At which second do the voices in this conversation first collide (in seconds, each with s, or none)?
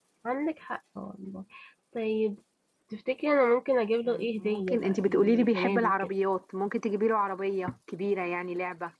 4.1 s